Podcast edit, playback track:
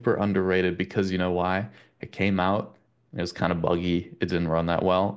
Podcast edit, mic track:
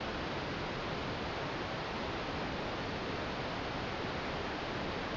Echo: none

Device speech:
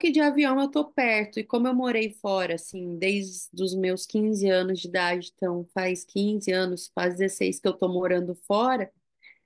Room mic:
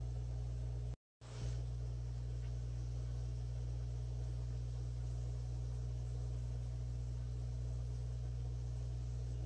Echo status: none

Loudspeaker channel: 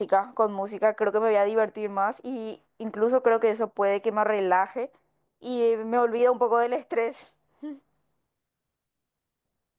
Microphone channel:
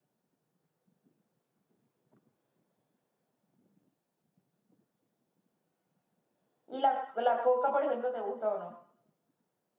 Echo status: none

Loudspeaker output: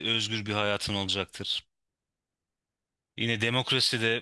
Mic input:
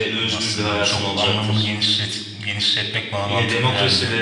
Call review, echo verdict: present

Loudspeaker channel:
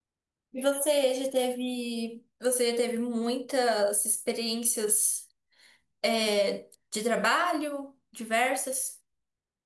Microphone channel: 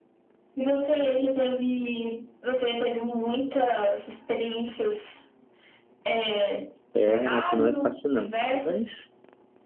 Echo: present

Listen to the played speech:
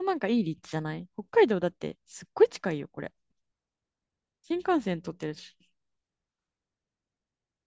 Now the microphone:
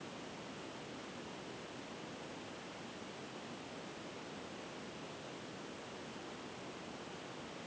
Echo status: none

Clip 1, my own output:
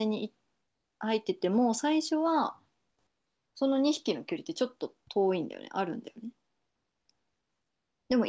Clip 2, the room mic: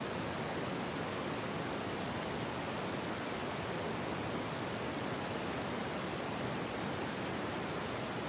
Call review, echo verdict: none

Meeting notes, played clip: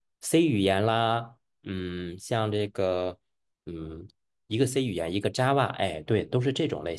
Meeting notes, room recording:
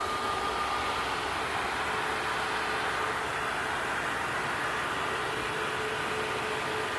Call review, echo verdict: none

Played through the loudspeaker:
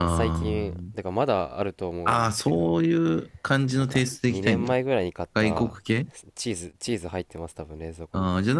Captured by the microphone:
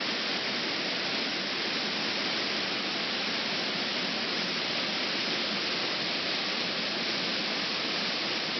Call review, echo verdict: none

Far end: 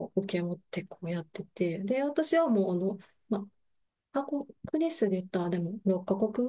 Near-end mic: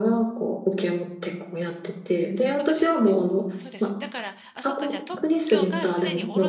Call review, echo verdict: present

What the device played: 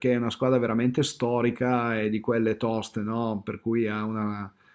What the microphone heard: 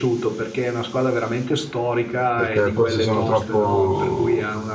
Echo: present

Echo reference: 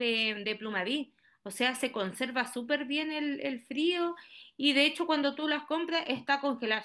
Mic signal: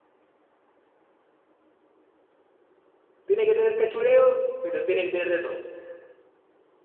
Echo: none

